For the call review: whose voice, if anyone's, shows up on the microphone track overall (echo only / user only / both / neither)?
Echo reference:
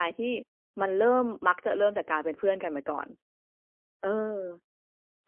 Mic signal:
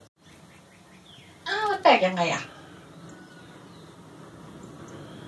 user only